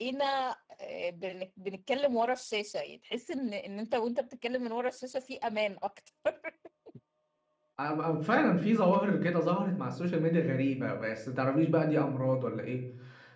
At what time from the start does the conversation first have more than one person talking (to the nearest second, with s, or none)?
none